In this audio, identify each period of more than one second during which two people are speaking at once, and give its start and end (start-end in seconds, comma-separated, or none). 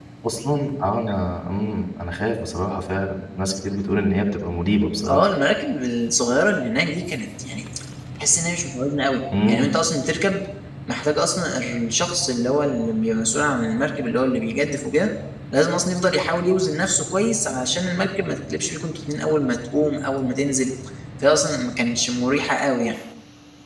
none